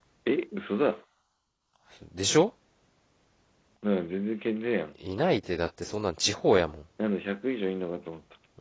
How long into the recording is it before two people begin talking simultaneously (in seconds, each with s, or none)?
none